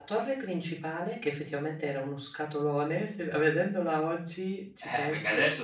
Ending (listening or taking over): taking over